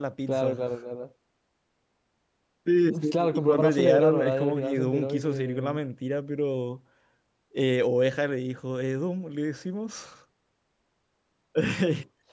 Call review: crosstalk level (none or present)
present